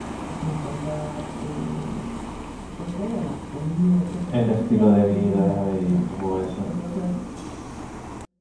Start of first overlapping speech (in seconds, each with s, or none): 4.3 s